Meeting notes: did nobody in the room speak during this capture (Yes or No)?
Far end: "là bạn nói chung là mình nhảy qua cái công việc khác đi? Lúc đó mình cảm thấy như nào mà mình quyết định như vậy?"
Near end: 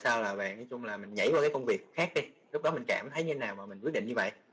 Yes